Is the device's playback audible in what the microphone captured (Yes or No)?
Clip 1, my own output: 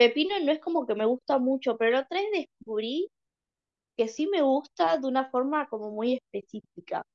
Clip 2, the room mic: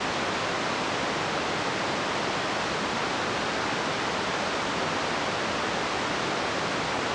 No